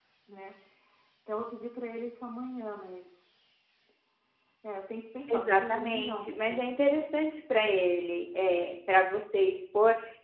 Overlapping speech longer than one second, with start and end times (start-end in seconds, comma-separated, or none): 5.3-7.0